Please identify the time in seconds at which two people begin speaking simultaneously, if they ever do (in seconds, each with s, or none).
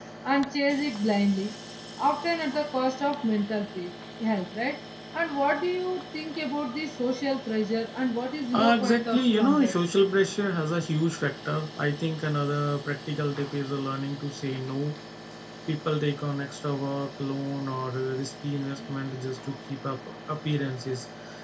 8.5 s